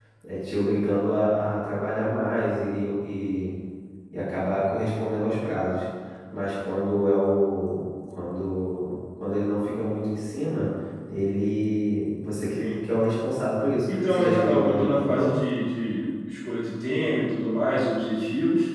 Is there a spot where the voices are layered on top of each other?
Yes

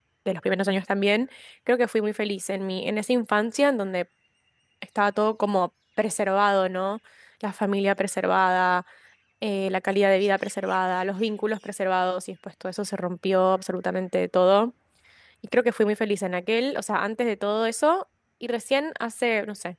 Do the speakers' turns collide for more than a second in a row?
No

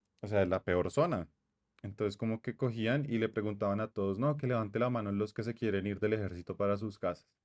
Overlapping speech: No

